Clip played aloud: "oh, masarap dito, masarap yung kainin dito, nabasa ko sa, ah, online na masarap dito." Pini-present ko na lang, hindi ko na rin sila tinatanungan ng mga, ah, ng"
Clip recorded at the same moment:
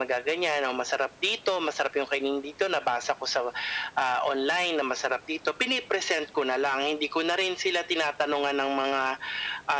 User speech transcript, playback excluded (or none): none